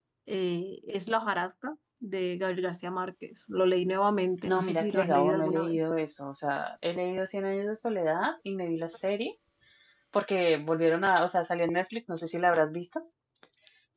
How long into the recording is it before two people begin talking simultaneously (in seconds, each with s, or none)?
4.4 s